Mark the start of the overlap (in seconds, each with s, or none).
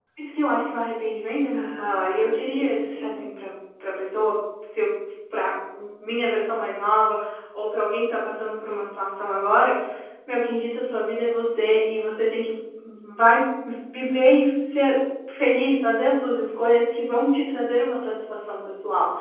1.5 s